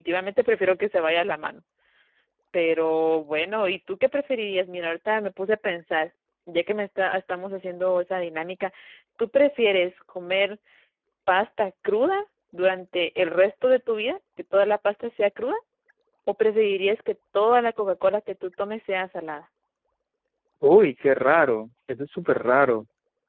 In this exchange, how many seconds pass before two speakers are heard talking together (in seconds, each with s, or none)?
none